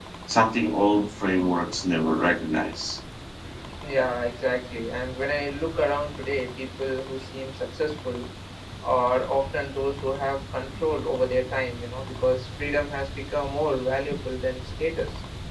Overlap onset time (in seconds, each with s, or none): none